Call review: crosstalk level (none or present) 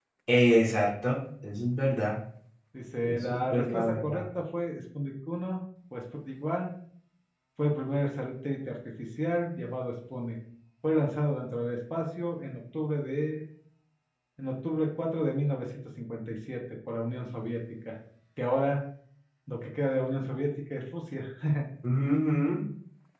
present